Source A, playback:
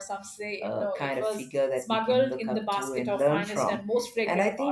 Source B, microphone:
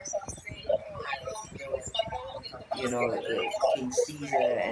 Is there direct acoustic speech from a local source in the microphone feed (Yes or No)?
Yes